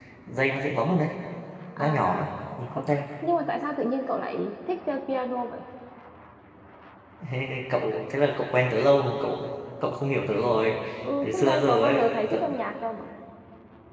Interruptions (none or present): present